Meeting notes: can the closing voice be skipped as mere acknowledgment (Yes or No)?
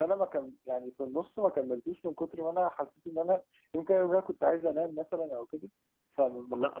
No